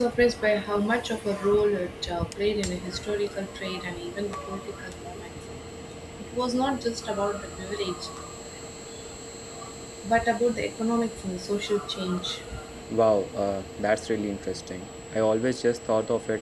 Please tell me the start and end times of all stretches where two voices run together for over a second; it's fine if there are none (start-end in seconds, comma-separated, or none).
none